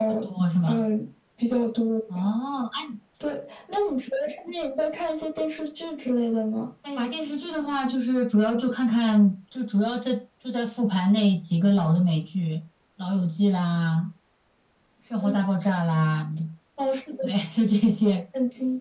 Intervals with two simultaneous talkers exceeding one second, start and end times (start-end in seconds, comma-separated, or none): none